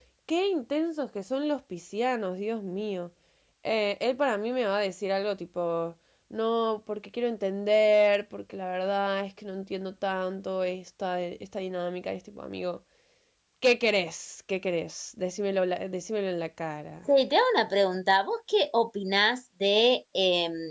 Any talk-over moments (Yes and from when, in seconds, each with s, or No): No